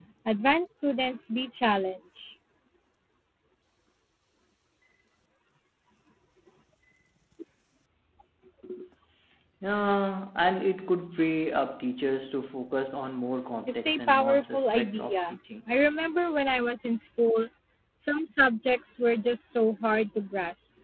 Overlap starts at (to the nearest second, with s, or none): 14 s